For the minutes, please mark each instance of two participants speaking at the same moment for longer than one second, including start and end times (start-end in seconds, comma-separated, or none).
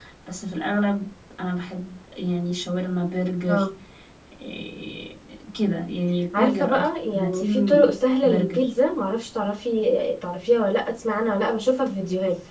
6.4-7.8